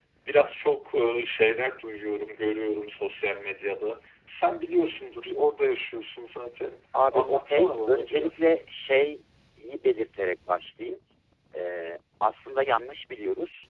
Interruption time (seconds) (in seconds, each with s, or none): 7.1 s